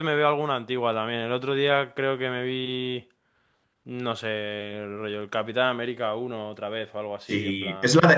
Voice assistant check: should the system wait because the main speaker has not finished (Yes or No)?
No